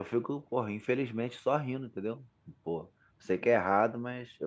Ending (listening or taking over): listening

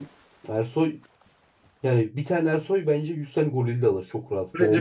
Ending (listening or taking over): taking over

